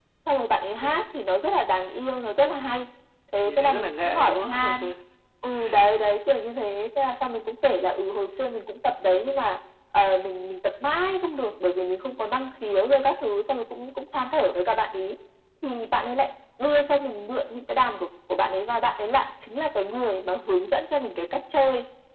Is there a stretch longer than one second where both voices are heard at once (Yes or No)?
Yes